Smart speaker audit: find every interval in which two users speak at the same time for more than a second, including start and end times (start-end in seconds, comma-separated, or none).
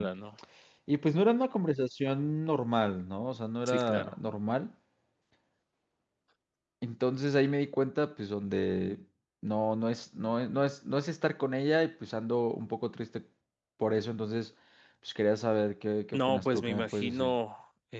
16.1-17.3